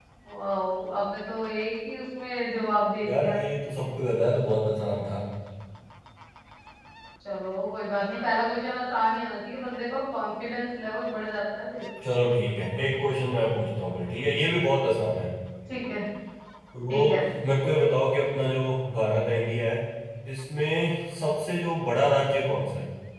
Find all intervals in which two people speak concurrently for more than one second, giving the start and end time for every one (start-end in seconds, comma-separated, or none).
none